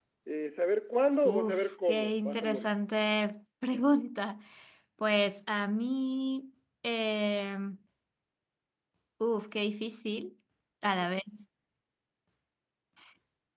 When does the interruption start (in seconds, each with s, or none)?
1.2 s